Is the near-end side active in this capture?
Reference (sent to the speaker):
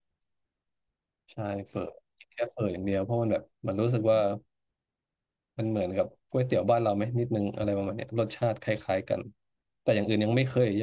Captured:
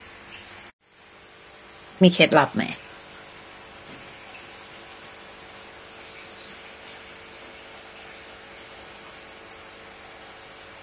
Yes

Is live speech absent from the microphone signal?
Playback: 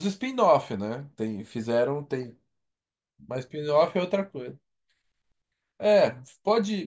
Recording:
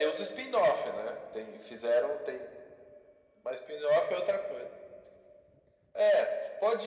Yes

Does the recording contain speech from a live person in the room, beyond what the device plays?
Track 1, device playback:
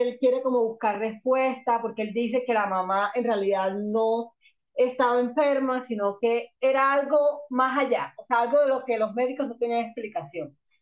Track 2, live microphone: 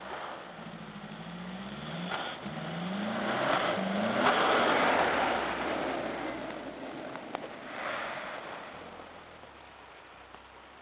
No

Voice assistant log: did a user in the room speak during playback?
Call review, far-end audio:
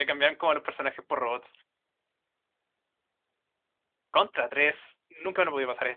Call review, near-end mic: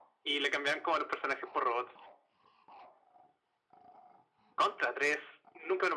No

